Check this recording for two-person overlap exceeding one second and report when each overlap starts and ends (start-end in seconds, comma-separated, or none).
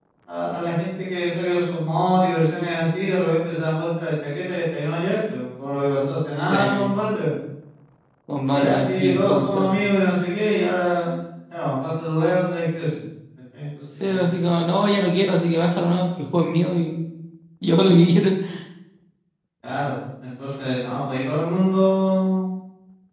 8.5-9.7